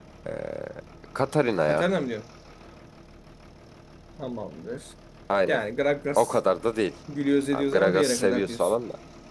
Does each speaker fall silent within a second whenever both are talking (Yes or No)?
No